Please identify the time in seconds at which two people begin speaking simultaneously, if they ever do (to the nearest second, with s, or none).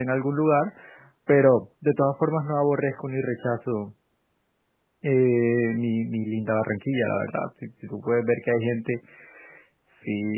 none